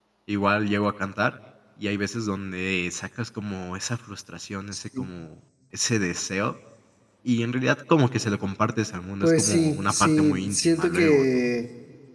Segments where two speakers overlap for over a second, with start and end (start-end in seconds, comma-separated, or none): 9.2-11.5